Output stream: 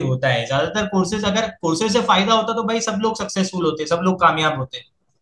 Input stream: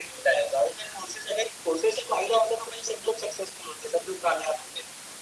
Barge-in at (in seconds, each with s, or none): none